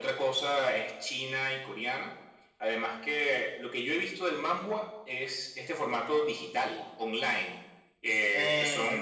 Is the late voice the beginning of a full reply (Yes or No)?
No